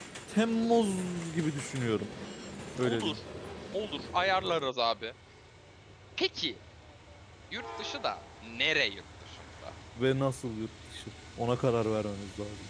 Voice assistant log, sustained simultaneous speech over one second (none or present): none